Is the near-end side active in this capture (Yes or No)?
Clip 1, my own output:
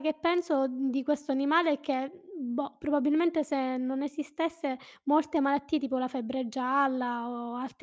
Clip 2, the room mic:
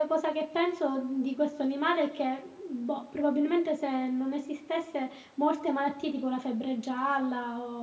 No